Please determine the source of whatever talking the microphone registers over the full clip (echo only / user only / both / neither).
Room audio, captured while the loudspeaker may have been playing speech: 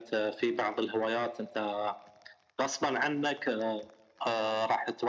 echo only